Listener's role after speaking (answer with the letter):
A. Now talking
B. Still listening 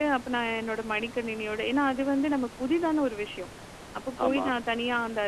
B